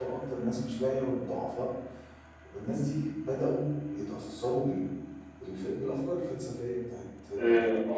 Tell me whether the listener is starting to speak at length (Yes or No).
Yes